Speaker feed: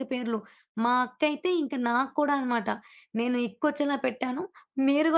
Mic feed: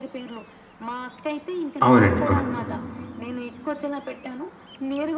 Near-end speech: present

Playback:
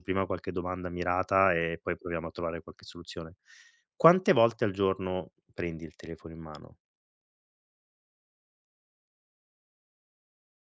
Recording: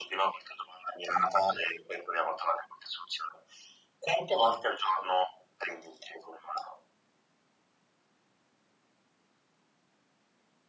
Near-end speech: none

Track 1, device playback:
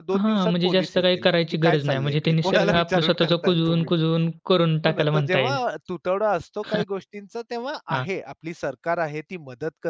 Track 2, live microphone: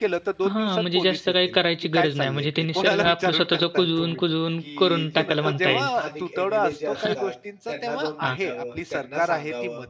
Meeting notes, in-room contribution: present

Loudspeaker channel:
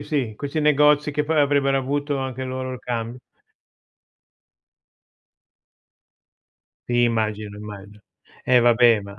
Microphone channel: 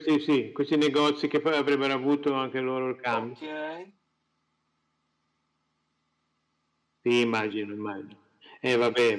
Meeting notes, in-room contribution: present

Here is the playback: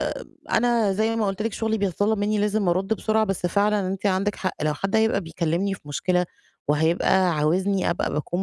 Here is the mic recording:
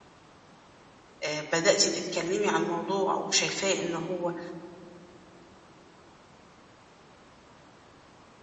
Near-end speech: present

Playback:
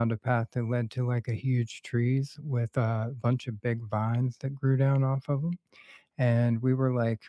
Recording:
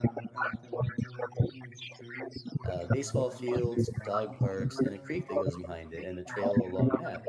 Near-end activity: present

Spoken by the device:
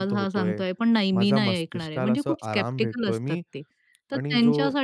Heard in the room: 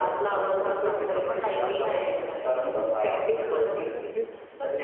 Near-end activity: present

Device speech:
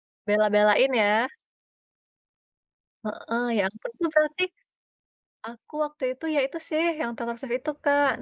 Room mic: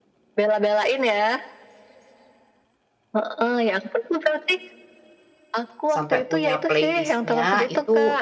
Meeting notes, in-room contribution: present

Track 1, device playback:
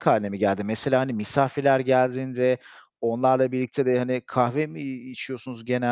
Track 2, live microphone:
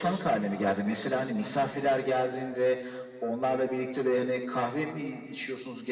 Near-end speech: none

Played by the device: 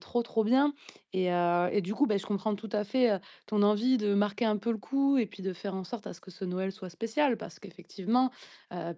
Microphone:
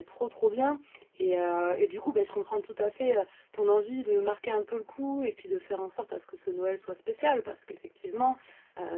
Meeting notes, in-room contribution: none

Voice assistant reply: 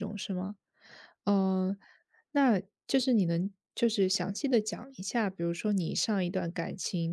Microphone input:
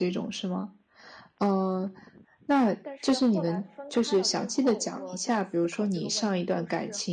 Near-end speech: present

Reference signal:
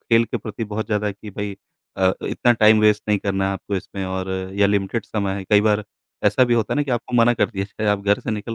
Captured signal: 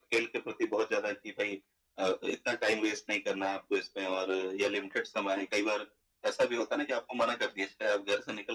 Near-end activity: none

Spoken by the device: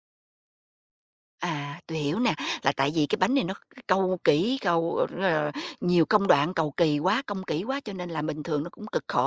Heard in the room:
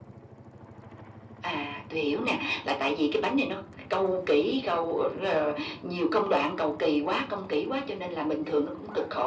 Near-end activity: none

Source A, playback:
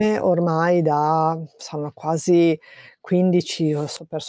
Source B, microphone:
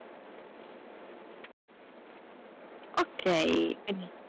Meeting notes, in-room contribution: present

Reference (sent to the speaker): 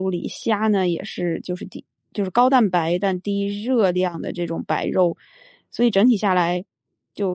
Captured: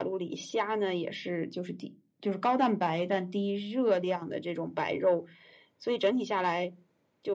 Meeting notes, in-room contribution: none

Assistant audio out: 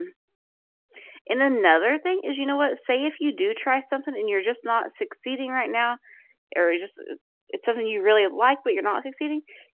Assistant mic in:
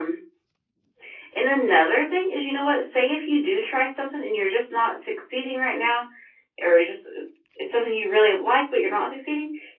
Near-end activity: none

